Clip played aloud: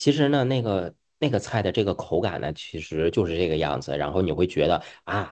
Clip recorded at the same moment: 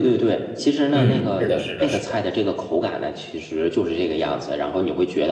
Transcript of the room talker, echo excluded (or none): 嗯，是的，是的，是的。